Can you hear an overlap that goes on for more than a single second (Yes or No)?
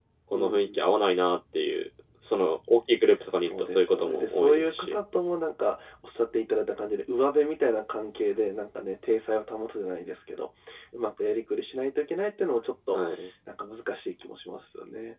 Yes